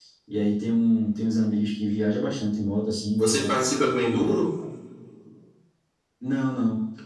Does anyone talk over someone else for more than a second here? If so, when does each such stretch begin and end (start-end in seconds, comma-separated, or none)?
none